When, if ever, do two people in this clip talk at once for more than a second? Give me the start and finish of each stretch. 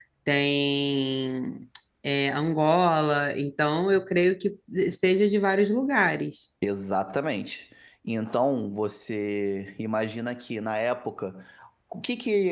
none

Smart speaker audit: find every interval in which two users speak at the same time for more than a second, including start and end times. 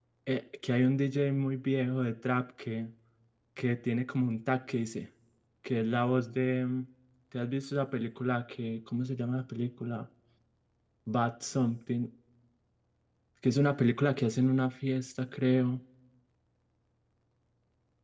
none

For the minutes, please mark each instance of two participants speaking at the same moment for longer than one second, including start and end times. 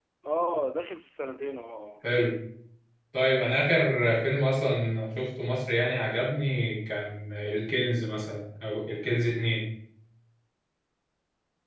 none

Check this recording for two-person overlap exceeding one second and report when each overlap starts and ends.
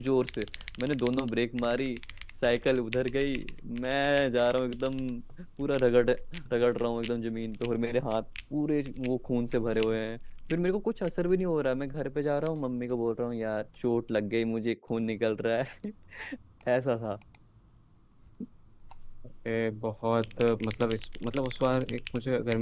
none

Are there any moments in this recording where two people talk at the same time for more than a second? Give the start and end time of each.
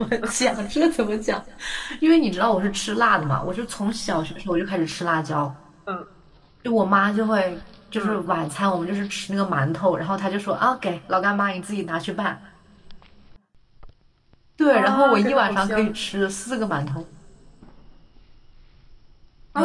14.7-16.0

